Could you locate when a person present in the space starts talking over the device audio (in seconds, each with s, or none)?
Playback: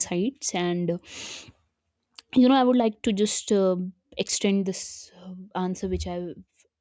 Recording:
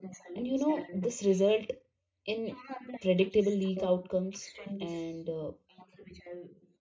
0.3 s